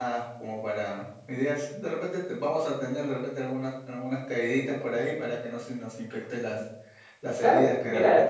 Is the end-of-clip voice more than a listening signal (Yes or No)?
Yes